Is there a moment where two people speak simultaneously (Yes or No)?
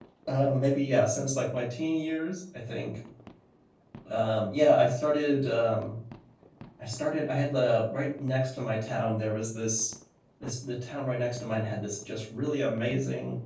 No